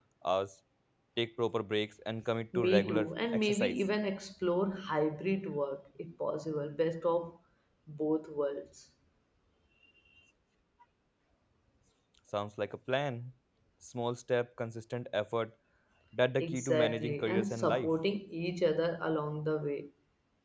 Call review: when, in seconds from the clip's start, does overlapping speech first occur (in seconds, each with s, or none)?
2.5 s